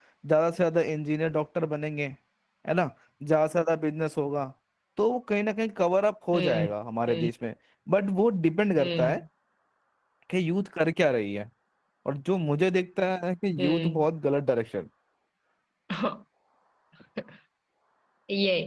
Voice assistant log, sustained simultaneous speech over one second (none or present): none